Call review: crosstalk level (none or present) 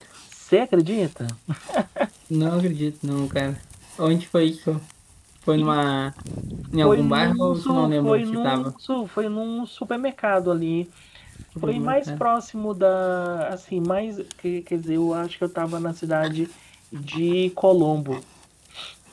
present